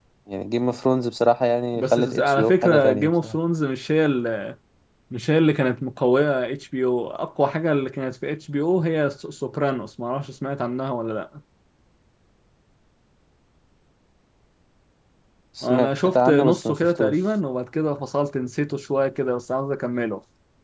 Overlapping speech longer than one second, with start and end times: 1.7-3.4, 15.6-17.2

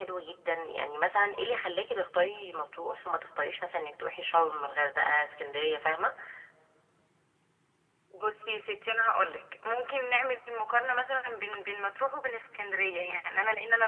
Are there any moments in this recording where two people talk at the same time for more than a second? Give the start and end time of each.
none

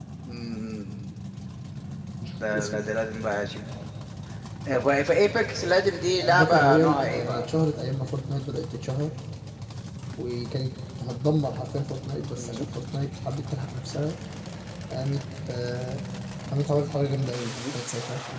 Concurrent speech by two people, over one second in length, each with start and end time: 6.2-7.4

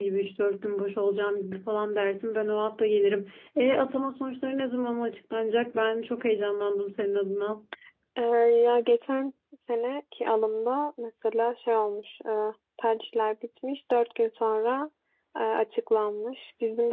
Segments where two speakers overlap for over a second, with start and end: none

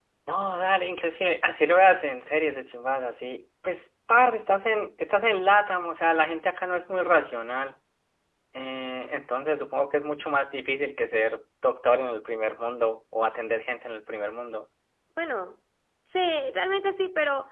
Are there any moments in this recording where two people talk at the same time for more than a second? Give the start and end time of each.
none

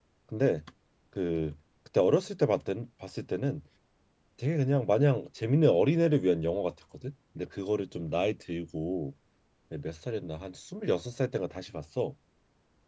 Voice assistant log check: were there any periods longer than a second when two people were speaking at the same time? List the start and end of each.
none

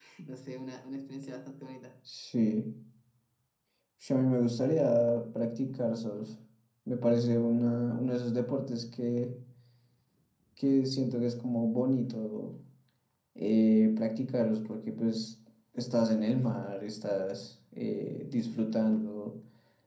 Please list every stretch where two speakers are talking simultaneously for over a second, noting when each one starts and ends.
none

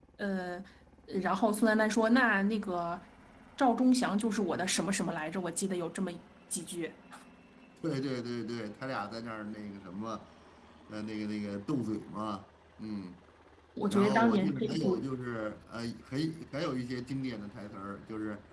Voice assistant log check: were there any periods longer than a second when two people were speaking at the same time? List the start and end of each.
13.9-15.1

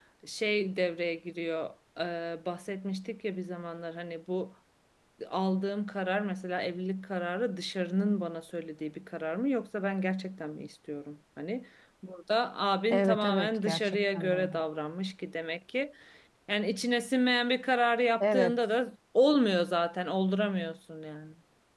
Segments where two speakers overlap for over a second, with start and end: 12.9-14.5

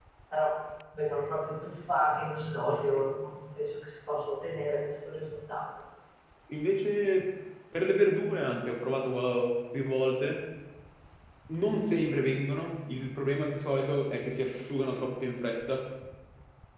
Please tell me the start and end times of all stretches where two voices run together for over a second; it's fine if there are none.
none

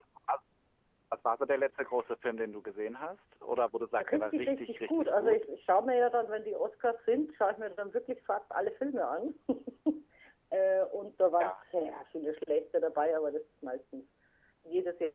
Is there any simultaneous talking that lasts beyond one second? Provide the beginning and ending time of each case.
4.0-5.4

